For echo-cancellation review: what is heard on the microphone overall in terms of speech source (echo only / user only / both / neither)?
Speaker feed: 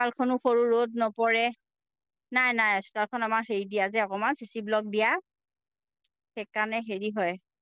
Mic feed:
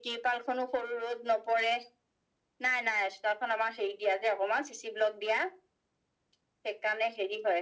echo only